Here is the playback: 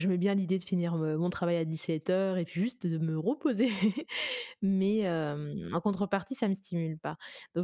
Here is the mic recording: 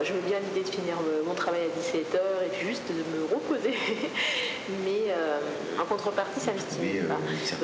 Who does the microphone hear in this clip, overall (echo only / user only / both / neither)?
both